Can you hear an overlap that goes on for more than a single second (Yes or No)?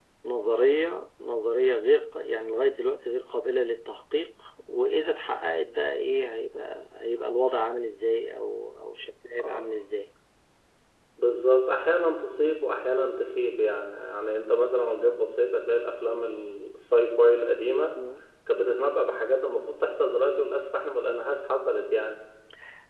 No